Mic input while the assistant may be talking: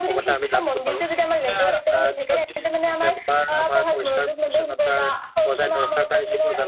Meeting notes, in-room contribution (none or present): present